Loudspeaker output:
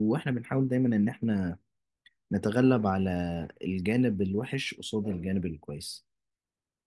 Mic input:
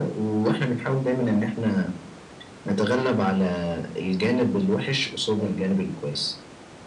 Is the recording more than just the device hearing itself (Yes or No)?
No